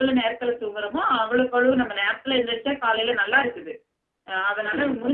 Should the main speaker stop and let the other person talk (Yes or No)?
No